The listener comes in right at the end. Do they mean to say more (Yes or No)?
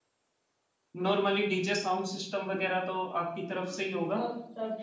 Yes